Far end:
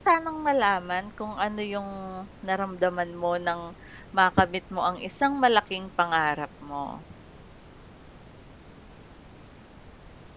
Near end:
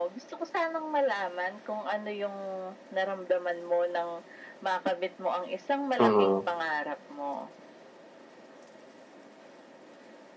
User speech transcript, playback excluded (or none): mm.